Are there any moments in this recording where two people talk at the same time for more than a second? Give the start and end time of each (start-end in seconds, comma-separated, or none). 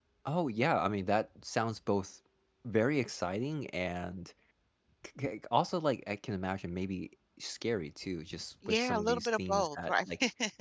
8.7-10.1